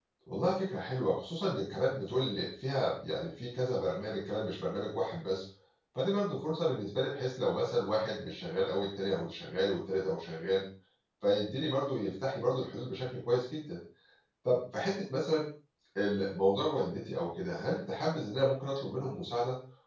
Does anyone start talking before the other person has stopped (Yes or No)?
No